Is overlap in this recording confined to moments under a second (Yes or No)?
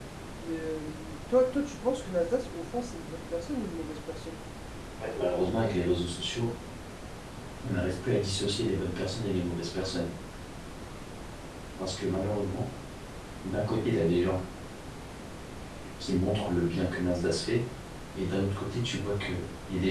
Yes